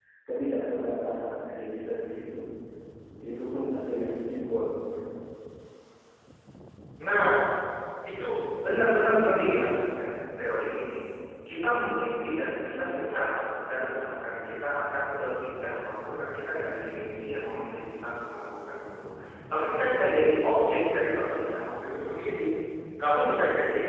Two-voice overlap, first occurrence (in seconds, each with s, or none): none